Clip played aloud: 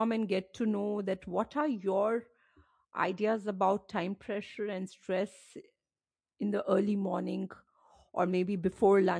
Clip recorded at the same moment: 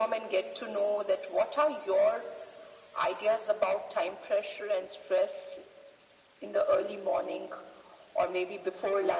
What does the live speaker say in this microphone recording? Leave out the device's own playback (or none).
none